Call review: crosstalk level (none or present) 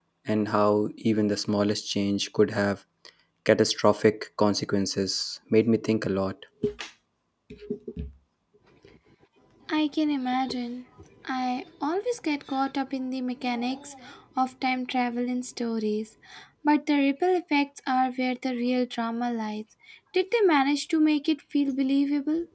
none